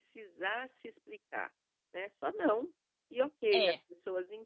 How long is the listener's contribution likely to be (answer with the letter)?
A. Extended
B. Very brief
B